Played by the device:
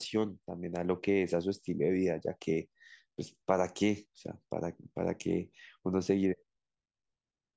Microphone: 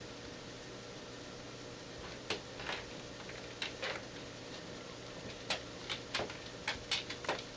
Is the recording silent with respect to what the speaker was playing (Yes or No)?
Yes